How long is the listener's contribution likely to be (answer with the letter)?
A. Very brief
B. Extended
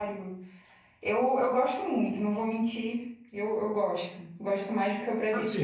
B